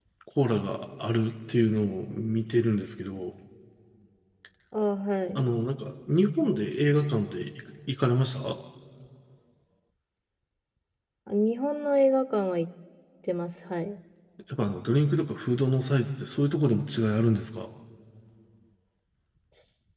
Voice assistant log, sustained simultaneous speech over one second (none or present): none